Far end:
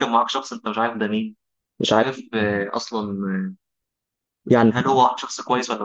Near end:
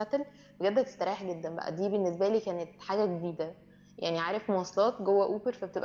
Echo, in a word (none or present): none